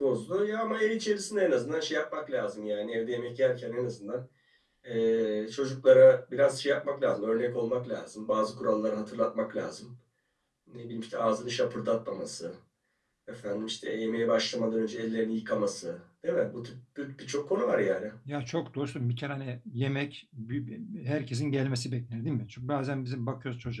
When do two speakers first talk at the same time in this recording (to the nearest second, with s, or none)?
none